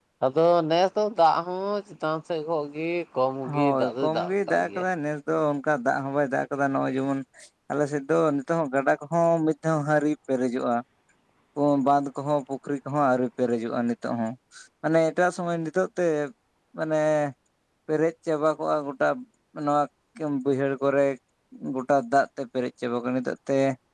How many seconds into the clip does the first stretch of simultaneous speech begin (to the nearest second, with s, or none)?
3 s